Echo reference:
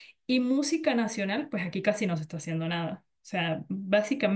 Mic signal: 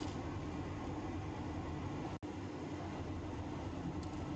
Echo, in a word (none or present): none